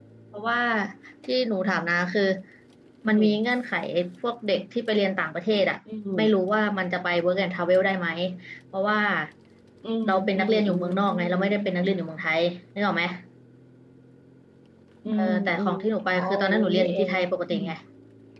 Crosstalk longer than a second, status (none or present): present